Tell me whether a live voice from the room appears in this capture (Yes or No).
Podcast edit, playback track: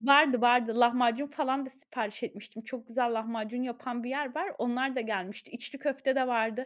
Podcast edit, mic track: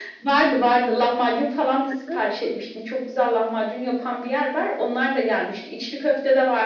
Yes